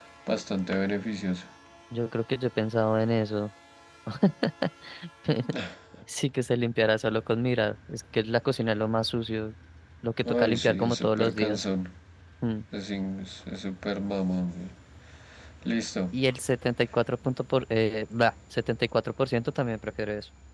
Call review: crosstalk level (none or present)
present